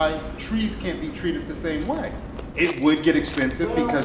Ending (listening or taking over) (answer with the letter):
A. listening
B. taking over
A